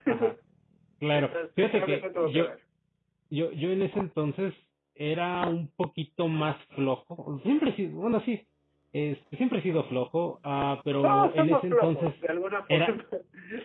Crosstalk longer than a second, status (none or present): present